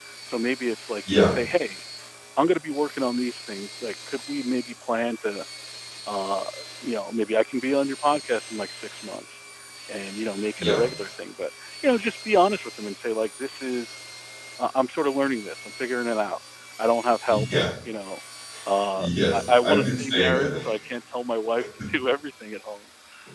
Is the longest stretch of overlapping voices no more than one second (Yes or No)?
No